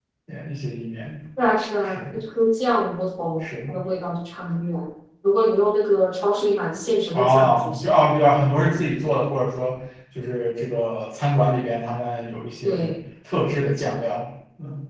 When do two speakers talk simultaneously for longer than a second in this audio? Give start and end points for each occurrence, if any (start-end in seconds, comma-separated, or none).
7.1-8.3